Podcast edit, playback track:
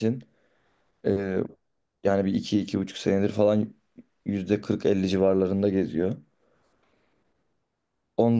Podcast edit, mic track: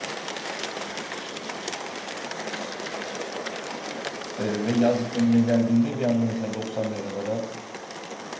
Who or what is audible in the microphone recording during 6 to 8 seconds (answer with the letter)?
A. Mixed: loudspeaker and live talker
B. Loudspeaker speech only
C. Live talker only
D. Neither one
C